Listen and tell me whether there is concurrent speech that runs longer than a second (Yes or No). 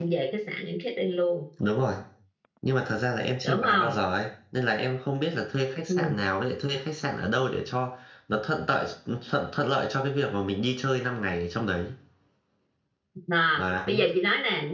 No